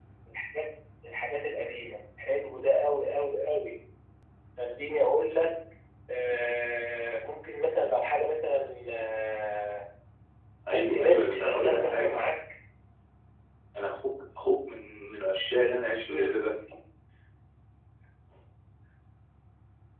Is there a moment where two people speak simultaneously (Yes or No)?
Yes